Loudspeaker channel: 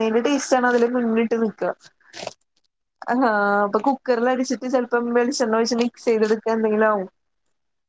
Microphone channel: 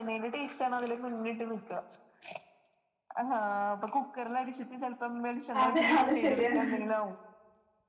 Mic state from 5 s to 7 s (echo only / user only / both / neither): both